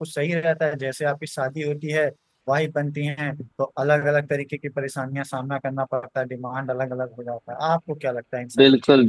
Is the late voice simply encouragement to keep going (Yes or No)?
No